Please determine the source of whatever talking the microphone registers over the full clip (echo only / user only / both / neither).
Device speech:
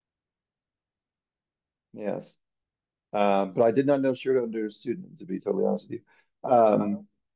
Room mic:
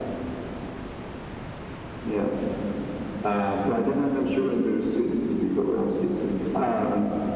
echo only